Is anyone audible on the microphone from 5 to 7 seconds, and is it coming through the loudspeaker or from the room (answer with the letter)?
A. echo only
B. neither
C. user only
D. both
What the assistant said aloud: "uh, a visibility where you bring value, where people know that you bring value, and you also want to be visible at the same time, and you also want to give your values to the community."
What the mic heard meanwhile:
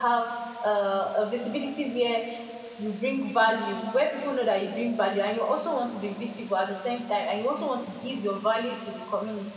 A